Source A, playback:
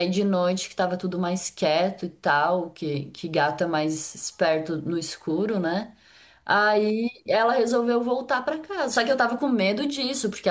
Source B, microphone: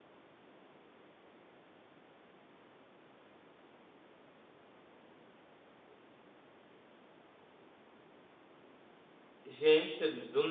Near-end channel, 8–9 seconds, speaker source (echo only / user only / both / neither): neither